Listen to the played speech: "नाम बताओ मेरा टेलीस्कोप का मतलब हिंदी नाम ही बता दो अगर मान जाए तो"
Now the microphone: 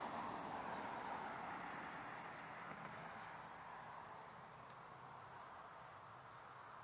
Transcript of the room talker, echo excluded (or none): none